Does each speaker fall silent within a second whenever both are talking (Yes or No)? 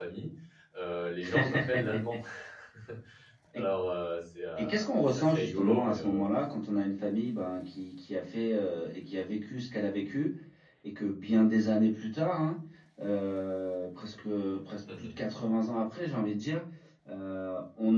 No